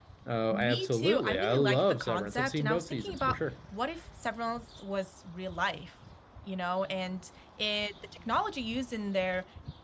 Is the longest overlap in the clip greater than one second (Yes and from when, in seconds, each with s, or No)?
Yes, from 0.5 s